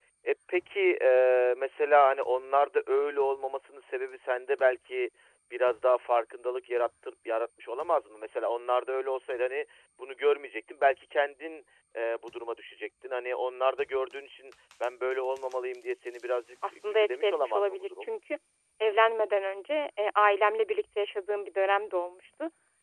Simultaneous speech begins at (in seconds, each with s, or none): 16.9 s